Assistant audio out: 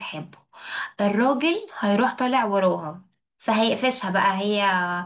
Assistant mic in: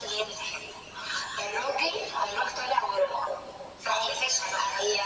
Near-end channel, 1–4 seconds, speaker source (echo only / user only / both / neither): echo only